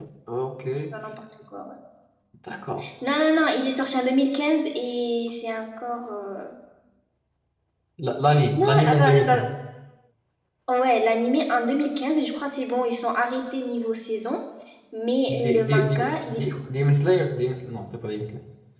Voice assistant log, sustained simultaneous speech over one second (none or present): present